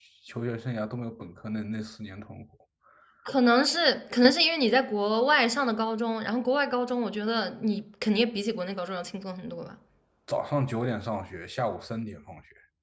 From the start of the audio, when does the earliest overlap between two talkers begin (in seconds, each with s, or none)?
none